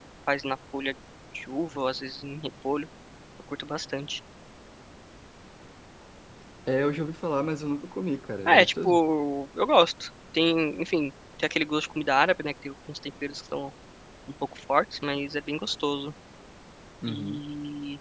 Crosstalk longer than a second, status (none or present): none